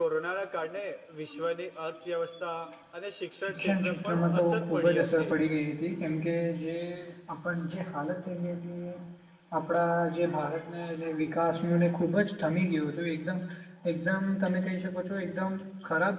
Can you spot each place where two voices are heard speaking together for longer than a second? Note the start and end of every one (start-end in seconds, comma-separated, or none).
3.5-5.3